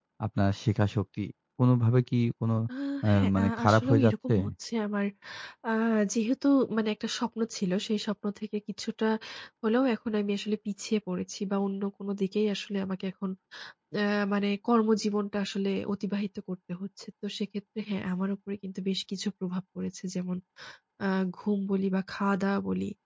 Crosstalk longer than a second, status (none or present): present